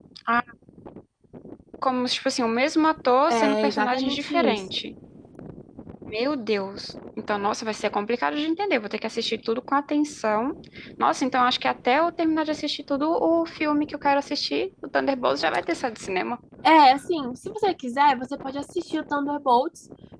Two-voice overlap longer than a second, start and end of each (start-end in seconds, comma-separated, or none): 3.3-4.6